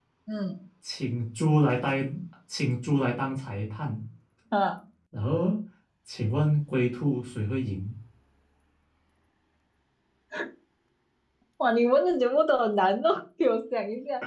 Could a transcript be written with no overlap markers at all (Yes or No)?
Yes